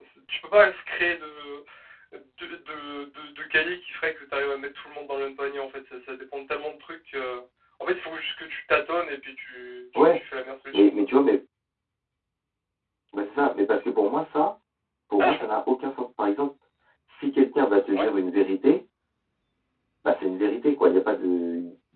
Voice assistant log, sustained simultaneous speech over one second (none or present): none